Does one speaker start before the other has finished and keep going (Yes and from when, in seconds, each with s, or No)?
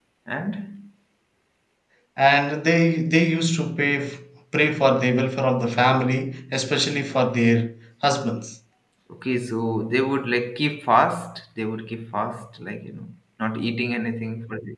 No